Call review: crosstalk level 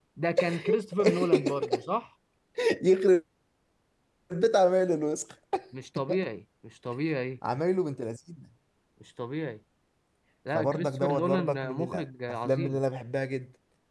present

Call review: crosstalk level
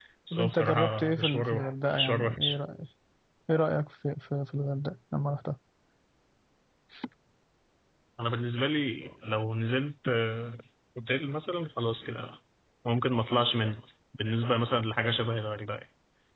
present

